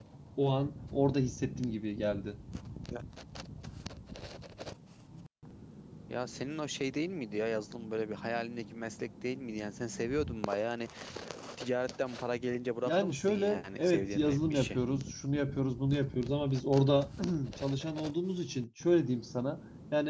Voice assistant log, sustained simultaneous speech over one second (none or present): present